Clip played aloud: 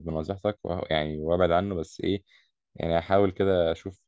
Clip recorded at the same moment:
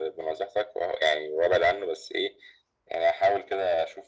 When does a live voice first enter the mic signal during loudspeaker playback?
none

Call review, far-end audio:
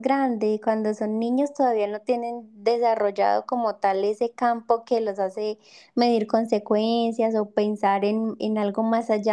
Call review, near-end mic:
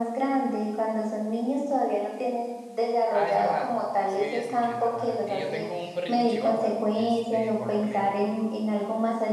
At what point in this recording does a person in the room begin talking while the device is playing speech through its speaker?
3.1 s

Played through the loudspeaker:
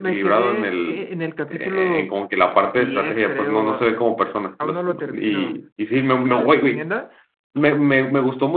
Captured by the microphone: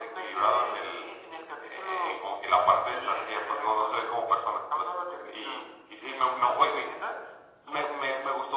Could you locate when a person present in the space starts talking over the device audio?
none

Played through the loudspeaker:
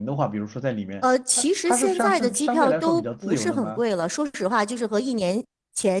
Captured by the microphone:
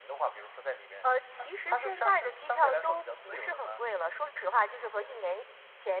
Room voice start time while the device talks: none

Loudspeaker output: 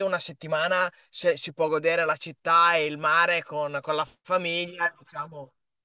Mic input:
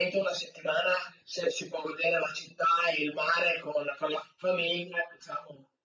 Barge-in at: none

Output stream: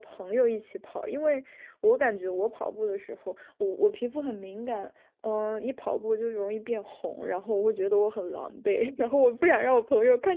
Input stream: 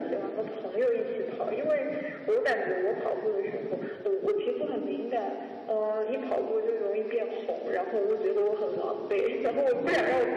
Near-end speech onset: none

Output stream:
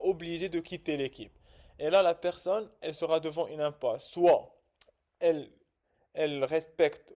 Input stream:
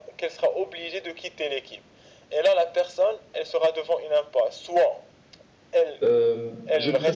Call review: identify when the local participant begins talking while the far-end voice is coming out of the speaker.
6.0 s

